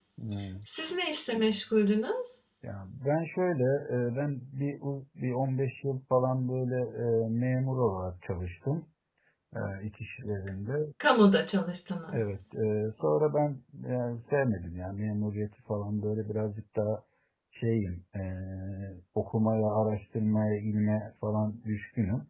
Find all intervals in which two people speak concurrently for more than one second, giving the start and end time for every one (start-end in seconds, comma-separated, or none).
none